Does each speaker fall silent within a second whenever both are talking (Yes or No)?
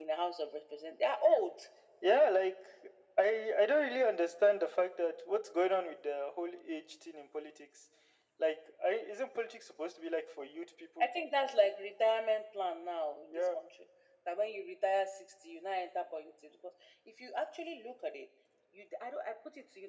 Yes